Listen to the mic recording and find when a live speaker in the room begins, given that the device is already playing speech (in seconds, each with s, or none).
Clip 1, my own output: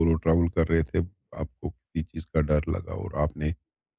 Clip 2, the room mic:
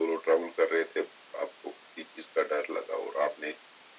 none